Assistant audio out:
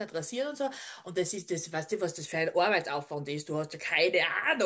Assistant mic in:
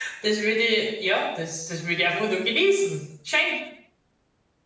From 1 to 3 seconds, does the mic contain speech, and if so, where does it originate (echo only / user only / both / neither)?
user only